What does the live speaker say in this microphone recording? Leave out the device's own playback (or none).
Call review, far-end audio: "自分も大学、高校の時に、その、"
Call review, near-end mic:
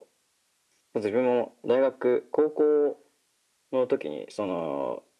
none